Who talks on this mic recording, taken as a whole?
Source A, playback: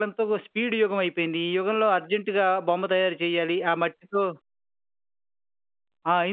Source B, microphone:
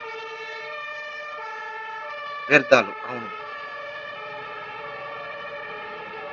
user only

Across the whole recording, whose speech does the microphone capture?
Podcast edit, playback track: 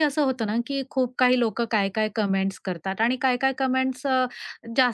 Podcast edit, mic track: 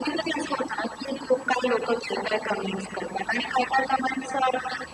echo only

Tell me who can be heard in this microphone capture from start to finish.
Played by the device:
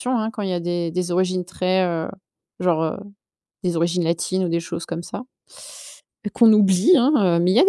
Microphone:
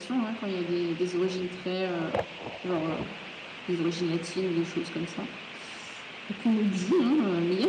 echo only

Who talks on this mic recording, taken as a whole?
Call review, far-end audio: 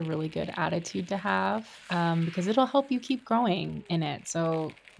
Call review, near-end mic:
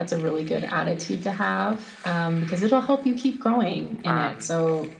both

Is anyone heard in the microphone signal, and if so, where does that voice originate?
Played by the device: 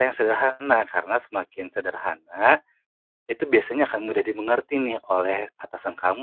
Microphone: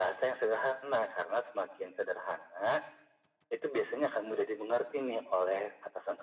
echo only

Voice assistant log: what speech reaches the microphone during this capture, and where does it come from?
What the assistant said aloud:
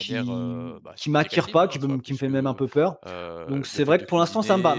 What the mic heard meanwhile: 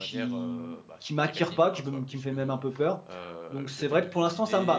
echo only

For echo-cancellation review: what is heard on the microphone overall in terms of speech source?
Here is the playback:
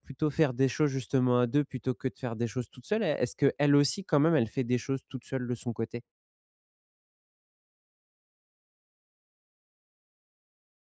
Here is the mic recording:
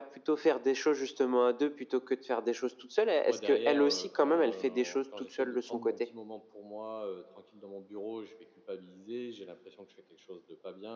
both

